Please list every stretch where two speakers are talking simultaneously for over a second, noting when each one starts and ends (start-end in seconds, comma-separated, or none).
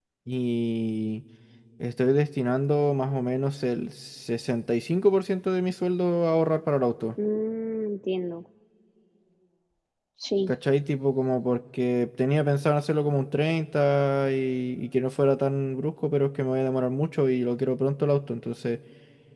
none